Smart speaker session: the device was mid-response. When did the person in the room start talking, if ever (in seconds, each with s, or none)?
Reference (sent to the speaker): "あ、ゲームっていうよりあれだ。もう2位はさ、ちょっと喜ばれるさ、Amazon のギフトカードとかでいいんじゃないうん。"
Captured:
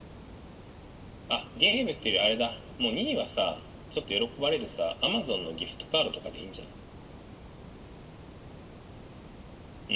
none